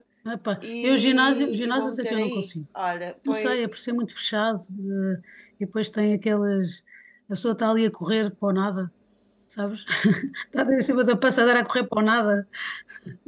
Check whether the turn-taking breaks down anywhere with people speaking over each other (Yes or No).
Yes